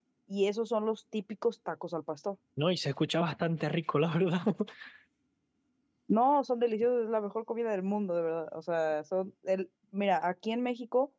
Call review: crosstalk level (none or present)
none